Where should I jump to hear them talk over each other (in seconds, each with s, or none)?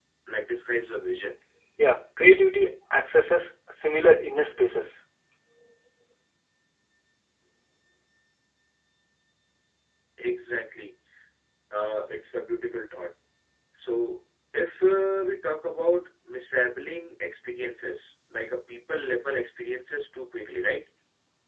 none